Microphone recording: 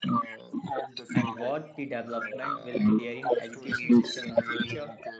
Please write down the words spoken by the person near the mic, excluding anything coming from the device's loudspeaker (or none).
and what the development will be there in education system in the future